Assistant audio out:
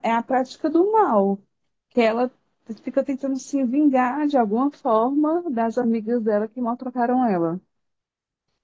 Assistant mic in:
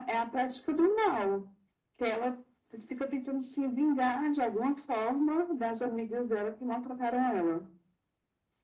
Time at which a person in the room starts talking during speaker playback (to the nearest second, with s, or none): none